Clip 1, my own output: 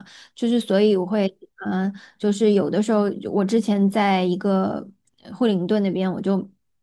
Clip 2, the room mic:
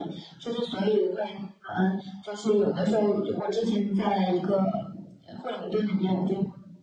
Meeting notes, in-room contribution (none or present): none